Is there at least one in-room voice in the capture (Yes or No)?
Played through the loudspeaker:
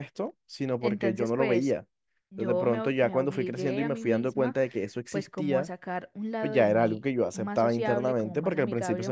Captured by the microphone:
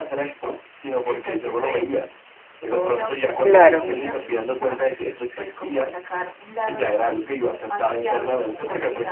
Yes